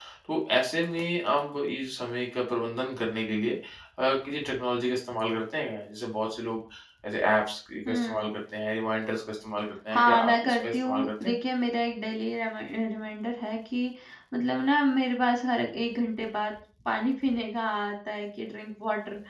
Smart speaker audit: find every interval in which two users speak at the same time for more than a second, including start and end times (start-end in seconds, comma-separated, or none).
9.9-11.3